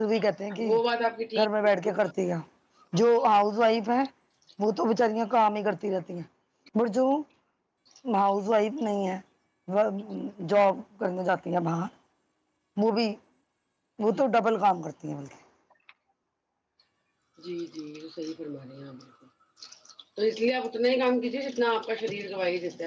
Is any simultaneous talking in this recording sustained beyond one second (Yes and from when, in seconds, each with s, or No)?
No